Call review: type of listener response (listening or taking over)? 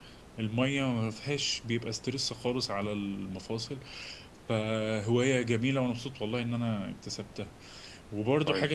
listening